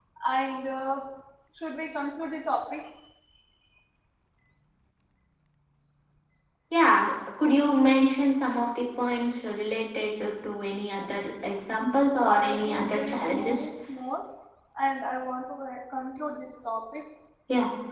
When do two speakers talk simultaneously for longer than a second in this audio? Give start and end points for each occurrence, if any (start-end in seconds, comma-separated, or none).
12.2-13.7